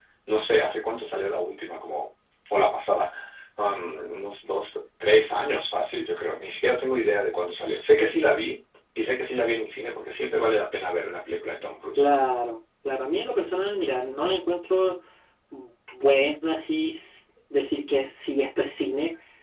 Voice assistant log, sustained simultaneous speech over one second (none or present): none